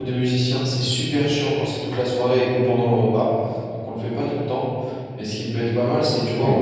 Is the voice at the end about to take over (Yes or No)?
No